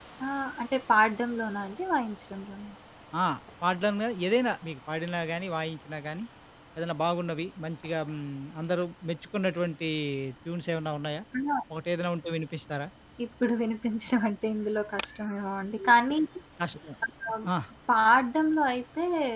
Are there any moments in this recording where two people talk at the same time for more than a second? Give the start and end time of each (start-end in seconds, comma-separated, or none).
none